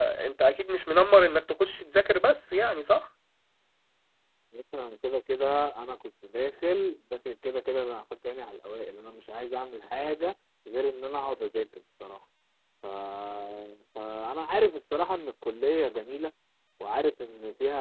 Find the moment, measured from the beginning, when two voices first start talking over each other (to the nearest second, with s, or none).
none